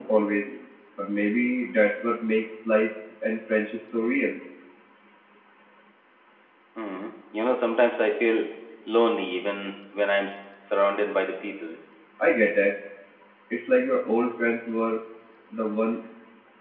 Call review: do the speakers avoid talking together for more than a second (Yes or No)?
Yes